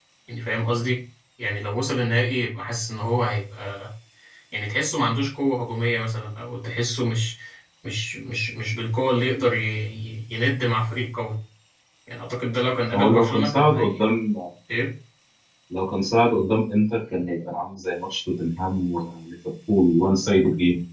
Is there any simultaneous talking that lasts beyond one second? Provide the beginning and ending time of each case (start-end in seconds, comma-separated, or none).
12.9-14.2